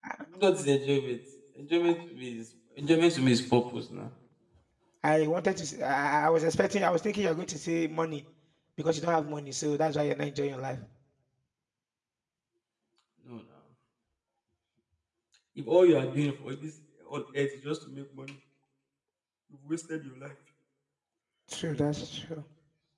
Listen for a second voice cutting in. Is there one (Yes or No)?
No